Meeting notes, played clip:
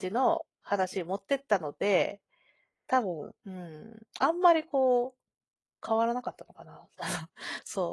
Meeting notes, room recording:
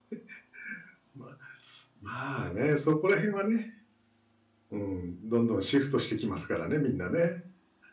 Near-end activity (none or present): present